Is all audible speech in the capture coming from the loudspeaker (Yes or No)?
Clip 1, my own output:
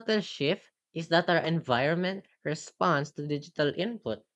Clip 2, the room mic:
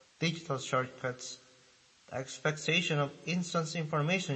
No